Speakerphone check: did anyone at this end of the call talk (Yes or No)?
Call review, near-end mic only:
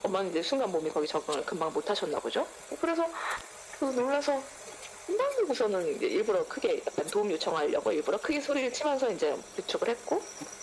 No